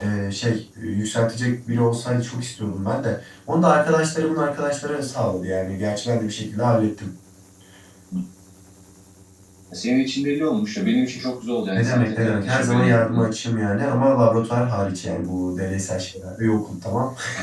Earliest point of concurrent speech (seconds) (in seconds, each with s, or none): 11.7 s